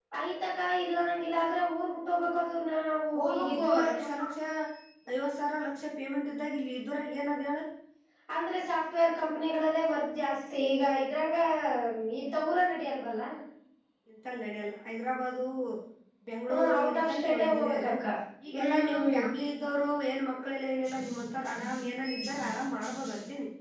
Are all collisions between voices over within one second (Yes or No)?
No